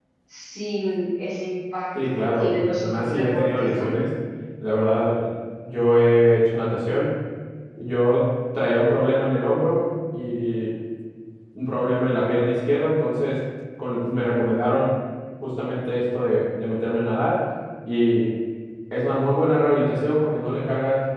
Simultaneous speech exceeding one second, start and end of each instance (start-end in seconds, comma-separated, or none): 2.0-3.9